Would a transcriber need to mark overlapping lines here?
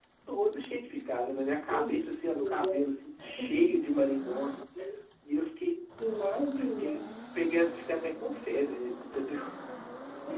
Yes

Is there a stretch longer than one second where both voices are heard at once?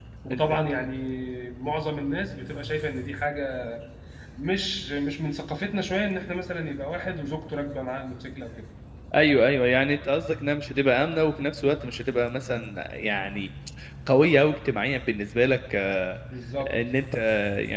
No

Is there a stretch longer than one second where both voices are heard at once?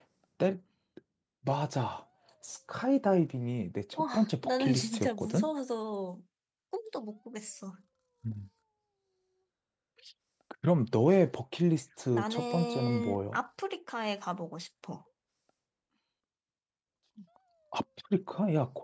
Yes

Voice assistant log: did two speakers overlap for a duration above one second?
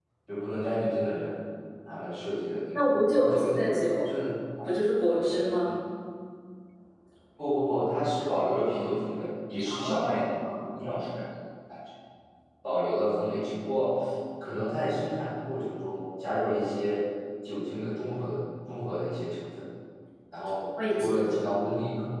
Yes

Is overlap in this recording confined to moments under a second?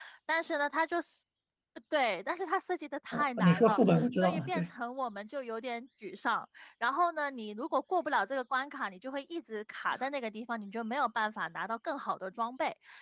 No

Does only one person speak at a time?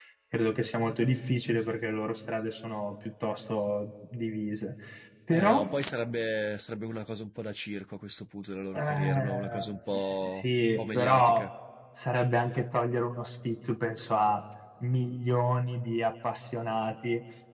No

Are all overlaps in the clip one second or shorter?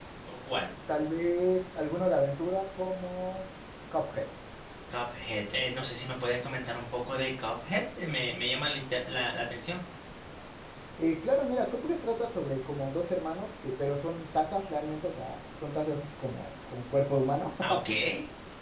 Yes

